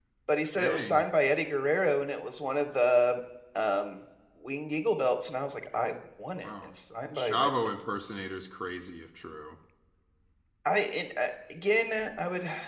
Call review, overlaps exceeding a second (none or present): none